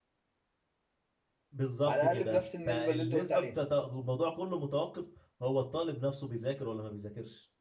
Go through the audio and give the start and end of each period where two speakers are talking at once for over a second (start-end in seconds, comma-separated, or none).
1.8-3.5